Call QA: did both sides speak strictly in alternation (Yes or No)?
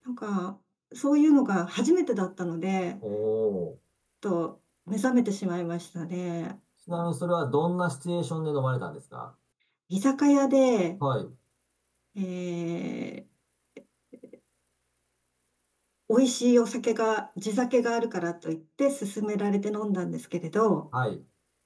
Yes